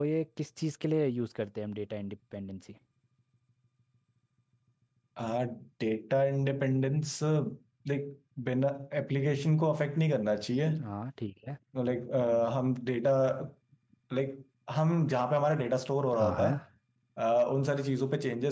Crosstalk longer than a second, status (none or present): none